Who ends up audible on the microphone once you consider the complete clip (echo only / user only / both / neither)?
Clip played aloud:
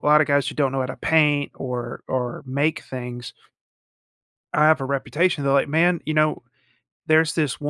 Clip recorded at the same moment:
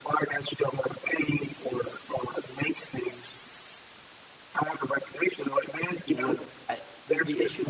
both